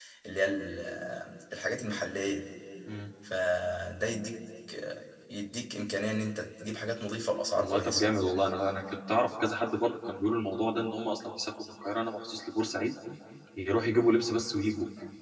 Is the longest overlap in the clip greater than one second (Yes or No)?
No